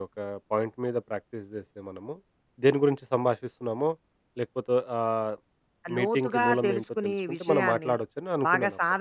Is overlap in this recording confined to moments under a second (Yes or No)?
No